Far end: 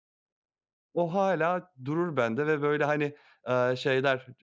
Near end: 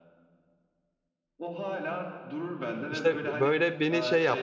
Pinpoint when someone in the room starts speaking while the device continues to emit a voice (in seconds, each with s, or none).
2.9 s